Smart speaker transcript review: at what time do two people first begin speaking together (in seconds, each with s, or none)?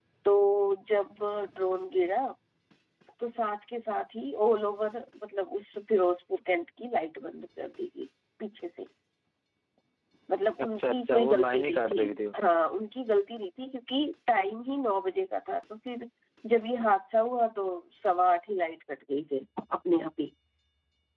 10.6 s